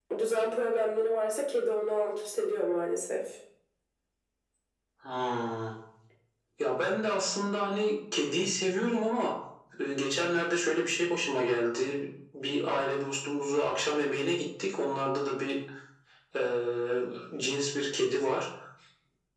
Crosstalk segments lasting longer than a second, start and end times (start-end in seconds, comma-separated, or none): none